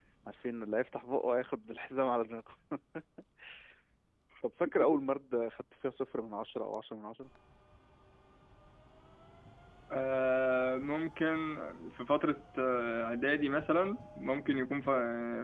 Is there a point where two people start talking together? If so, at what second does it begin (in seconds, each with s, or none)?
none